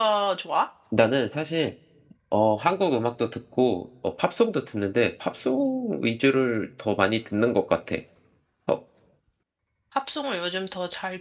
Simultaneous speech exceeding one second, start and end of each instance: none

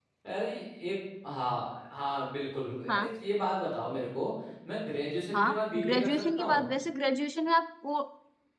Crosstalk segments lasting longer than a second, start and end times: 5.3-6.7

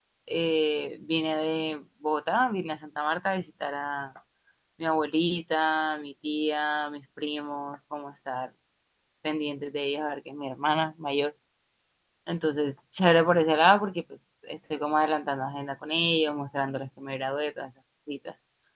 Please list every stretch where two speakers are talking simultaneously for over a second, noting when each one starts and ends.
none

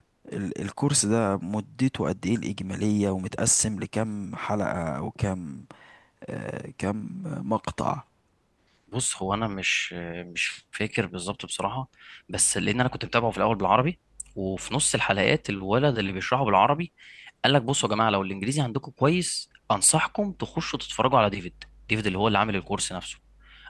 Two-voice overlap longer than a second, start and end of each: none

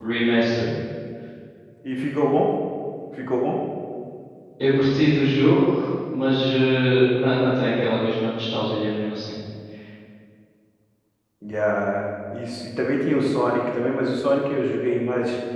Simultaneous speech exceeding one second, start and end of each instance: none

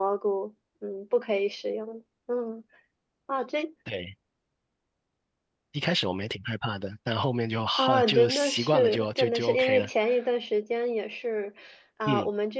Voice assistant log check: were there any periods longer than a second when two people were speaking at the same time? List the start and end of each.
7.8-9.9

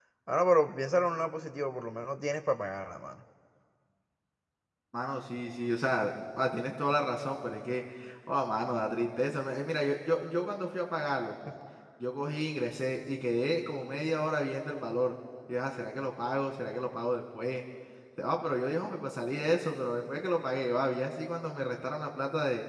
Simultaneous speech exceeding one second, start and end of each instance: none

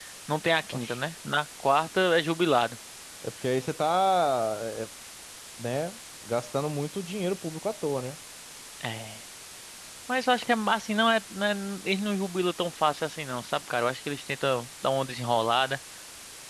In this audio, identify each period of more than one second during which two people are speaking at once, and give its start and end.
none

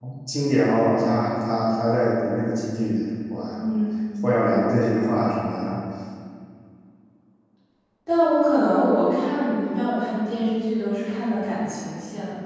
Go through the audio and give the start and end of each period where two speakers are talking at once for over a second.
none

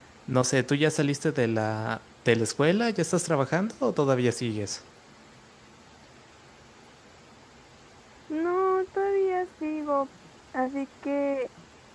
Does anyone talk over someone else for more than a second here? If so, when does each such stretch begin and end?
none

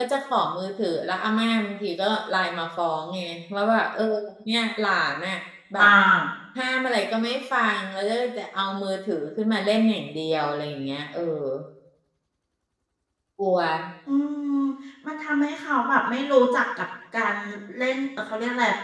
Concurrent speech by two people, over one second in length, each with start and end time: none

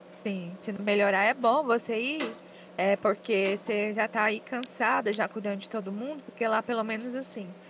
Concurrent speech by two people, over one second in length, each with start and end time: none

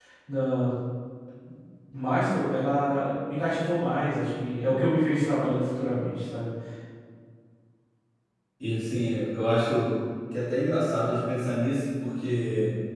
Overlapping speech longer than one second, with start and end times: none

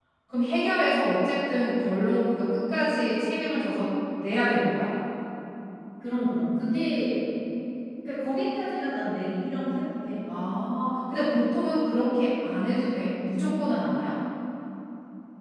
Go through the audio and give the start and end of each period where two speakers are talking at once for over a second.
none

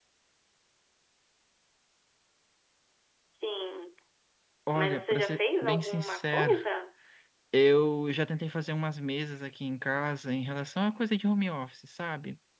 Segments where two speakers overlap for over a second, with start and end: 4.7-6.5

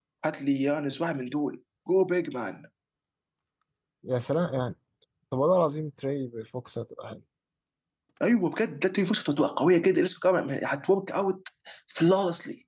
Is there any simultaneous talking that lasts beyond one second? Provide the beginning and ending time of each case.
none

